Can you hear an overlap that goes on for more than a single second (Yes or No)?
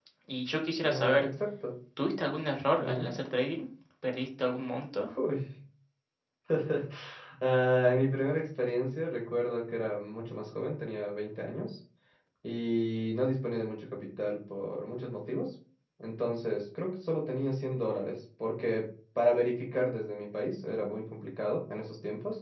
No